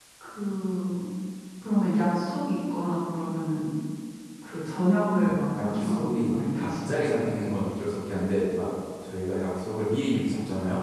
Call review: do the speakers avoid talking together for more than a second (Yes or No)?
No